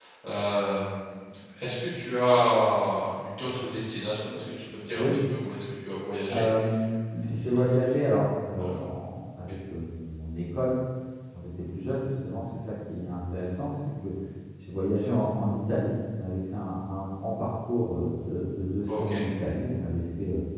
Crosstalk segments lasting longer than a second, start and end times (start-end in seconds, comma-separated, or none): none